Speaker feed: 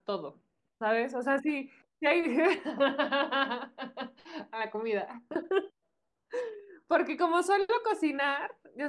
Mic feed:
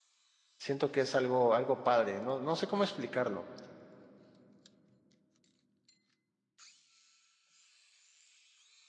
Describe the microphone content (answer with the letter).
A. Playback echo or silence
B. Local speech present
B